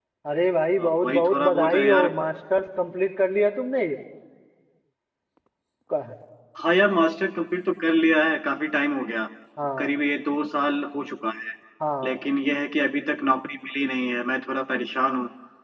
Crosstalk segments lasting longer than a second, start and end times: 0.9-2.1

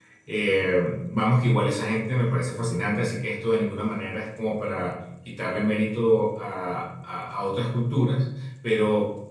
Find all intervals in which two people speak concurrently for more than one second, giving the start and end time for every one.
none

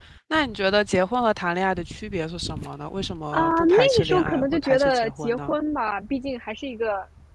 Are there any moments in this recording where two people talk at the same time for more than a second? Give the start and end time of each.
3.3-5.5

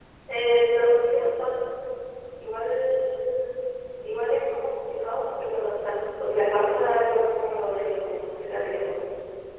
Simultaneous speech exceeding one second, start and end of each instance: none

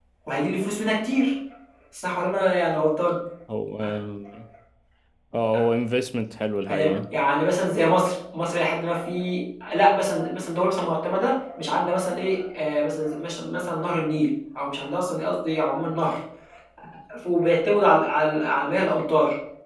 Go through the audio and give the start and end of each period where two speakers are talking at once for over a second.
none

